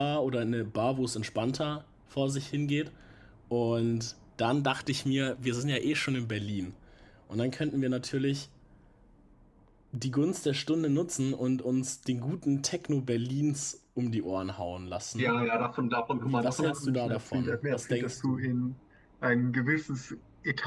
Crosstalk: present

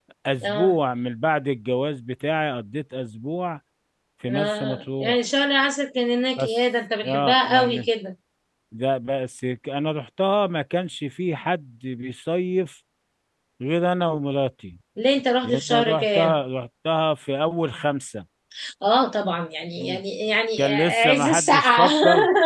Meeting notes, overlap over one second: present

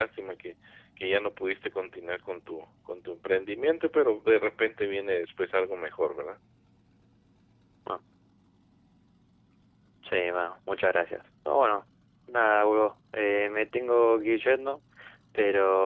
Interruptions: none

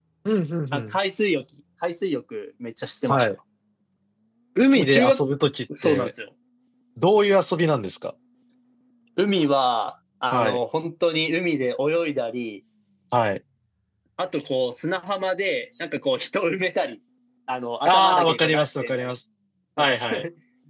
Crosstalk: present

